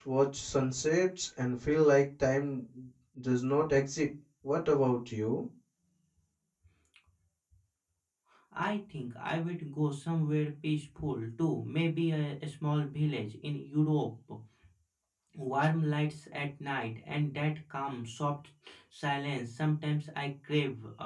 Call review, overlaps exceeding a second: none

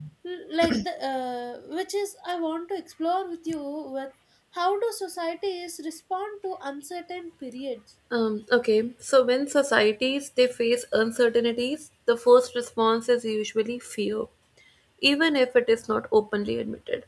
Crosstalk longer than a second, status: none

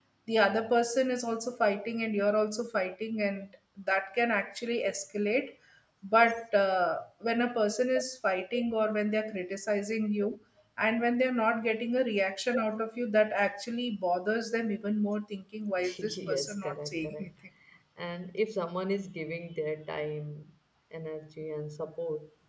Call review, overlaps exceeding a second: present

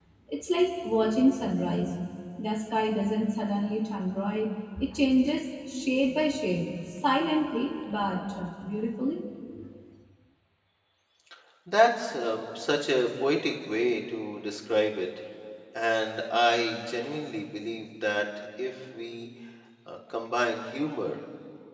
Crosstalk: none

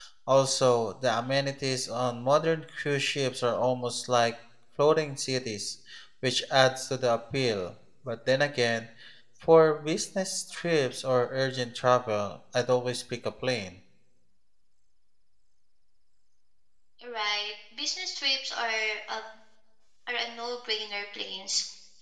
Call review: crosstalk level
none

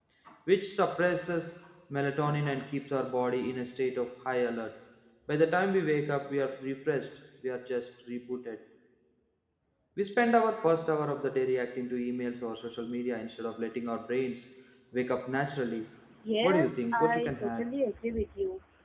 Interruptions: present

